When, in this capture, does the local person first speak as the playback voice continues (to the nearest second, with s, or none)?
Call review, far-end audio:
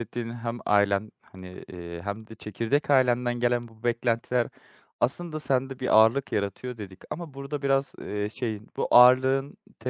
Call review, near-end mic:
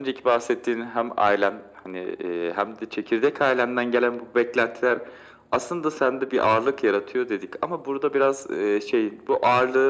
none